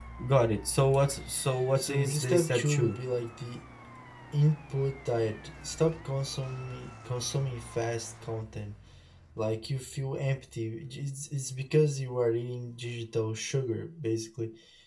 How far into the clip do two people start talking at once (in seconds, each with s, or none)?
1.8 s